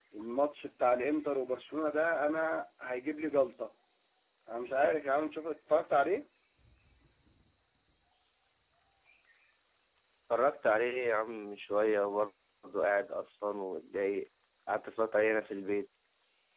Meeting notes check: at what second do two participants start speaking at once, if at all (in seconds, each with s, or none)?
none